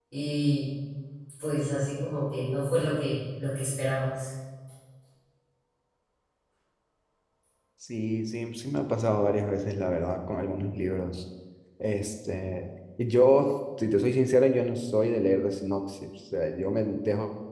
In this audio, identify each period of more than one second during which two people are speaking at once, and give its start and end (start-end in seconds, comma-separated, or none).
none